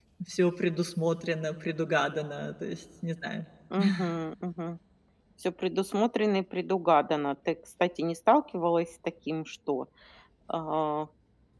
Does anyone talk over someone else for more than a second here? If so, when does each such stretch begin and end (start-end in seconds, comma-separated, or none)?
none